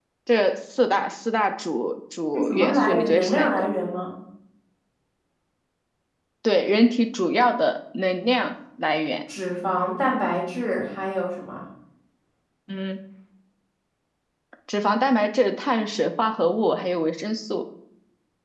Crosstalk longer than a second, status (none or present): present